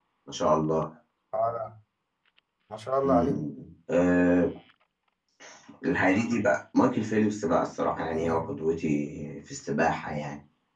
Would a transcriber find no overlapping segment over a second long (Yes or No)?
Yes